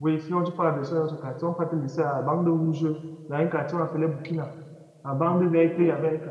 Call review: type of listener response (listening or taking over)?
listening